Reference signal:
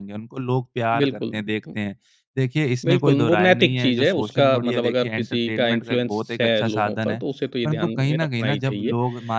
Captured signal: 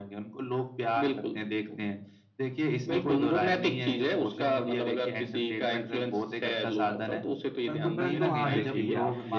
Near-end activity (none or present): present